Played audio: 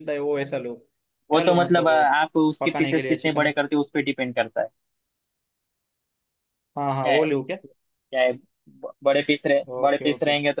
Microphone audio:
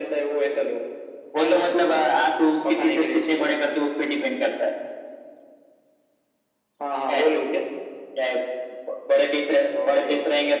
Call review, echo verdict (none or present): present